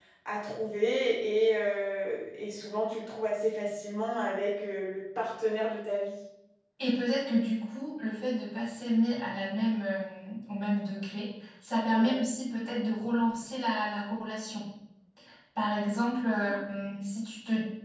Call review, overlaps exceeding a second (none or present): none